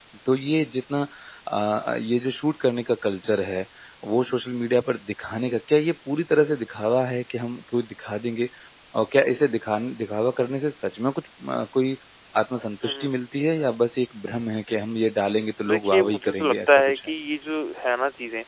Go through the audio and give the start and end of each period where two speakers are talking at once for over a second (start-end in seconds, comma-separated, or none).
15.7-17.0